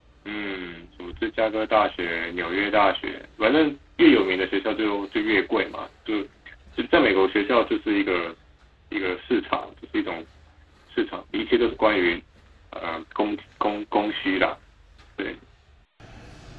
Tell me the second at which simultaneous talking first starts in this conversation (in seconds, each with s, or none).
none